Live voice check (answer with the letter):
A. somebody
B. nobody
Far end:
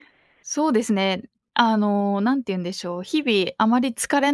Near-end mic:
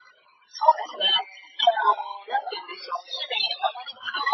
B